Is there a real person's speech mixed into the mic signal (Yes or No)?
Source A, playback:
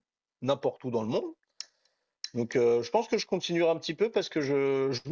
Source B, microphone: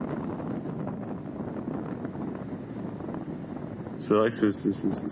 Yes